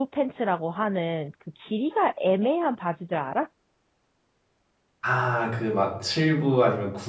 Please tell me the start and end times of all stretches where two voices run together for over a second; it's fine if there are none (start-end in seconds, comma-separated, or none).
none